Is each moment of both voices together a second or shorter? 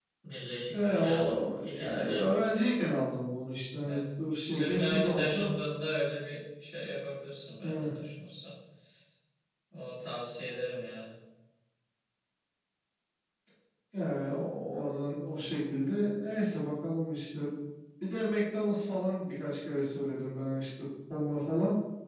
No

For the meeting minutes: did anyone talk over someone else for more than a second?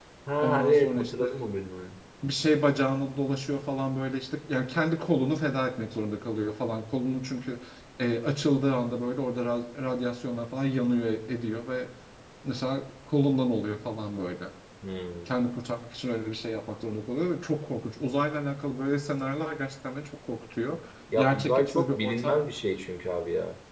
Yes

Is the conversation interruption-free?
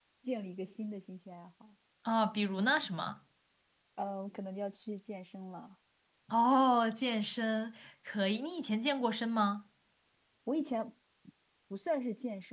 Yes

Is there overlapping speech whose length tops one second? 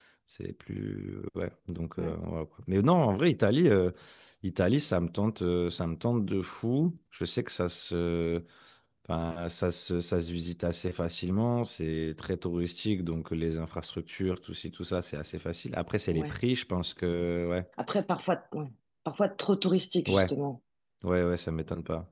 No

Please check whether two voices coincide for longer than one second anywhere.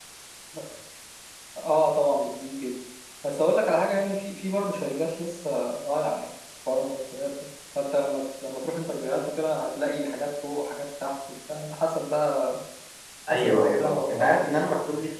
Yes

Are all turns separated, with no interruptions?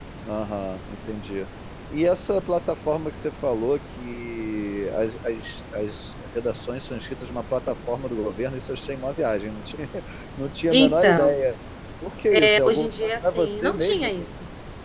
No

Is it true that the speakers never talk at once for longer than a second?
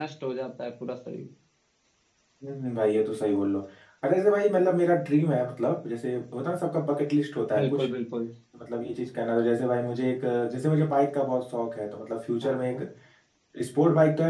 Yes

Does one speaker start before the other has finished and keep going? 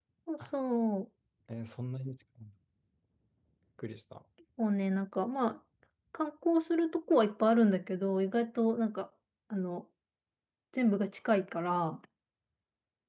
No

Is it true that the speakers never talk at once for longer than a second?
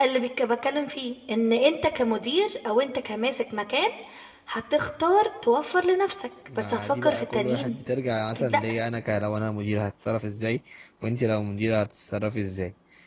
No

